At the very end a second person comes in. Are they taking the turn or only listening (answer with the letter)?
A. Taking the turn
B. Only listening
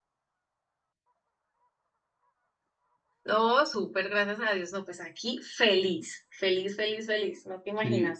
A